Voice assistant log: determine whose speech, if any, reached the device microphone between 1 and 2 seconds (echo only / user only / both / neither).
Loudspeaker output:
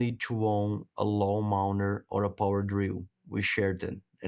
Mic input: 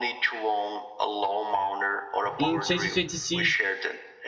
echo only